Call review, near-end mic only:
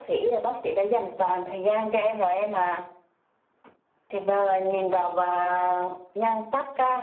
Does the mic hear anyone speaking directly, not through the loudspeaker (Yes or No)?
No